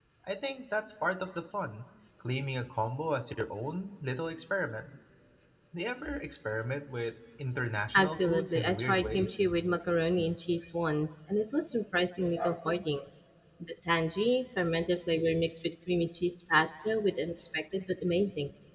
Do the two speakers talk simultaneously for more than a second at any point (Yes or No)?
Yes